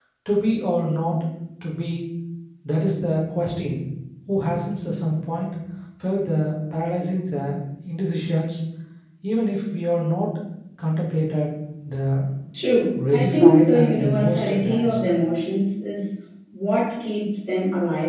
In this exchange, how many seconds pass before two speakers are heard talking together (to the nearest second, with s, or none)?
13 s